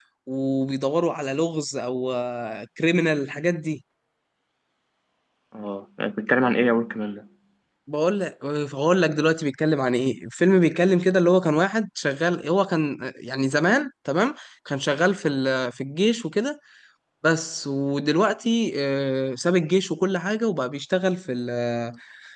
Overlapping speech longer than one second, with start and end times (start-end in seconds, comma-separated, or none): none